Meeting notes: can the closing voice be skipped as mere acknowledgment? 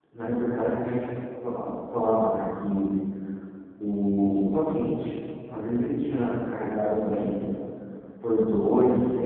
Yes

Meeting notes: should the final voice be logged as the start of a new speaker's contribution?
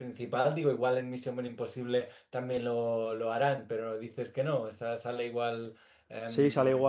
Yes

